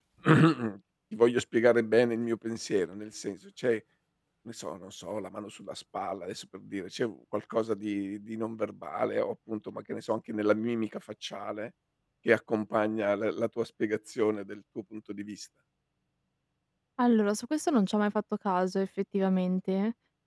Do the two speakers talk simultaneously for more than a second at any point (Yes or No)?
No